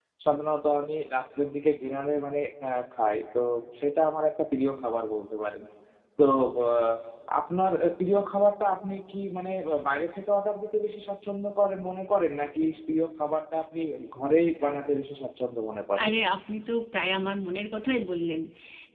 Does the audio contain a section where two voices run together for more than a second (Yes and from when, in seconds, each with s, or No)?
No